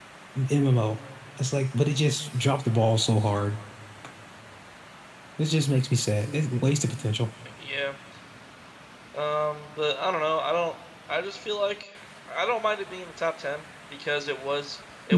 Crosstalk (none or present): none